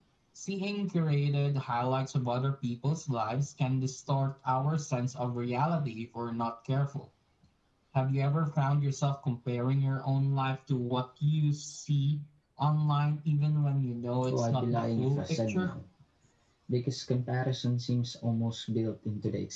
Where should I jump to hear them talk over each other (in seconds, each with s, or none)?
14.2 s